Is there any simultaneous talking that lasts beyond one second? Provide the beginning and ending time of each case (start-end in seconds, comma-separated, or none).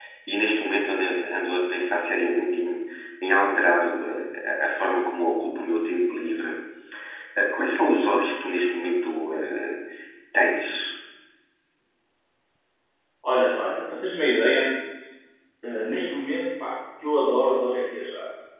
none